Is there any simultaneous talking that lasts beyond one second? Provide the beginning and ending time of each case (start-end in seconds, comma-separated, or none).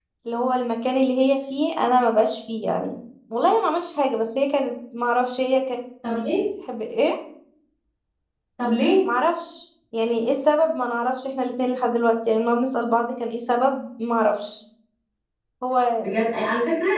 none